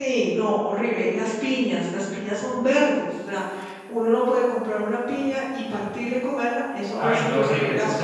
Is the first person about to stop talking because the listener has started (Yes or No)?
Yes